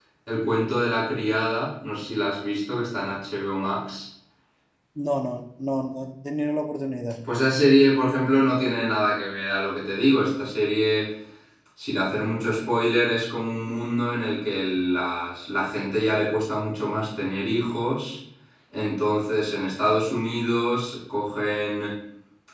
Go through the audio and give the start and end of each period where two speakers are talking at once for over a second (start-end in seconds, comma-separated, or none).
none